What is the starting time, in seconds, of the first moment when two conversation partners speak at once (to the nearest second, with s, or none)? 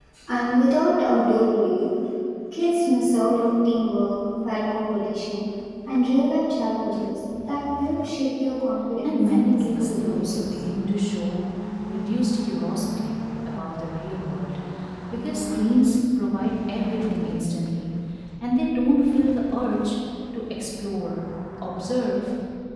9 s